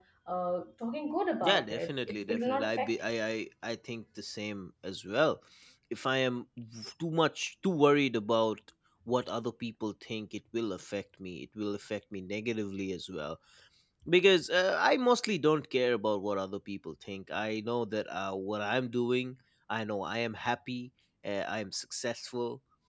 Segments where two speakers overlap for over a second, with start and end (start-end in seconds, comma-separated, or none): 1.4-2.9